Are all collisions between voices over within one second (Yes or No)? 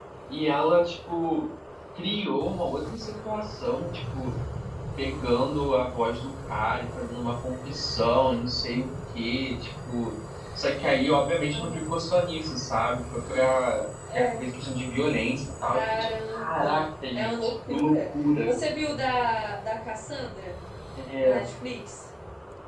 No